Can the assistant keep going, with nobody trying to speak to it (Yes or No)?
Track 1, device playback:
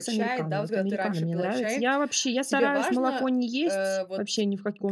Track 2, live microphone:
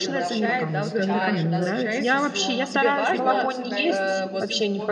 No